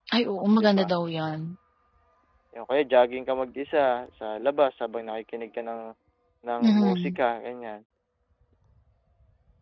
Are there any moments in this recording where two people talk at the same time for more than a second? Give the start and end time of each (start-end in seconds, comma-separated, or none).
none